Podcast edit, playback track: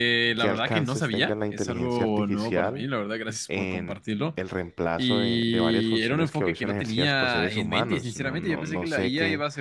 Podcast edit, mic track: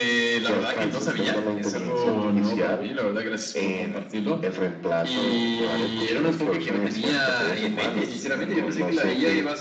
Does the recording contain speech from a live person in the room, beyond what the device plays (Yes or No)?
No